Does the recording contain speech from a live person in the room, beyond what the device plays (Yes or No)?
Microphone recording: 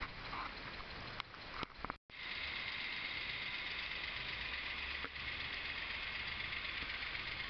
No